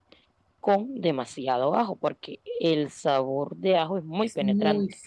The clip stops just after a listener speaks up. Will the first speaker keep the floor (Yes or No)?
No